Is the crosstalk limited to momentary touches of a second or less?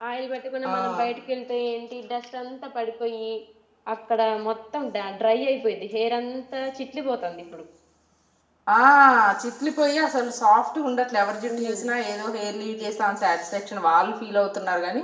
Yes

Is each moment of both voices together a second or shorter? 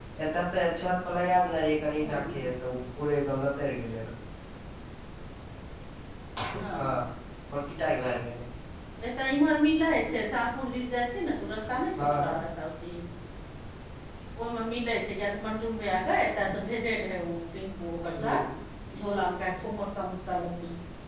Yes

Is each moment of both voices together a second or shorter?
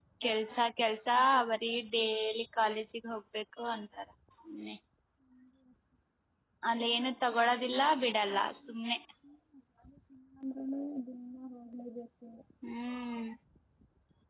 Yes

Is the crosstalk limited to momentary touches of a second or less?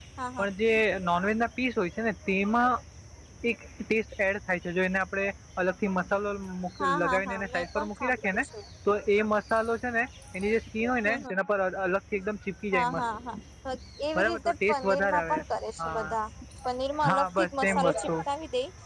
No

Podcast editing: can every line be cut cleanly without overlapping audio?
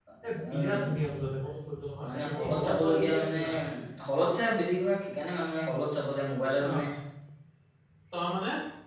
No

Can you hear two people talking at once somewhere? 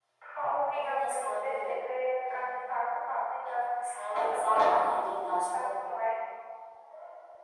Yes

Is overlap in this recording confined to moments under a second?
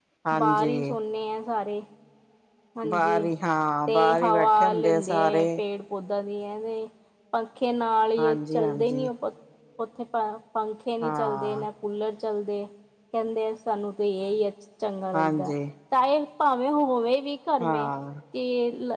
No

